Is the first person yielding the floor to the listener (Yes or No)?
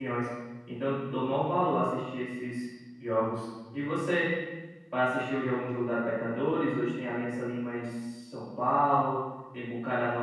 No